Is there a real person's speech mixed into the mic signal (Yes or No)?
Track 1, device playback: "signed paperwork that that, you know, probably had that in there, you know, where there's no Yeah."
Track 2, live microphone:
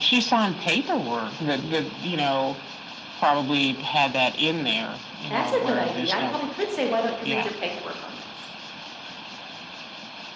Yes